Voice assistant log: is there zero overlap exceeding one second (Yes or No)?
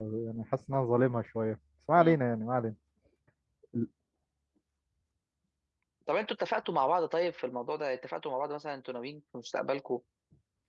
Yes